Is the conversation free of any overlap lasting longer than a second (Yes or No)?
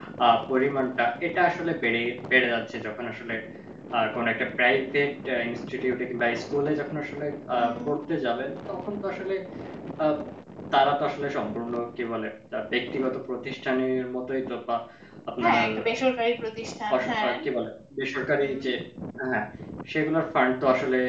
Yes